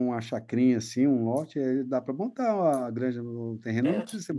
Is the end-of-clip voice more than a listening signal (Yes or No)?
Yes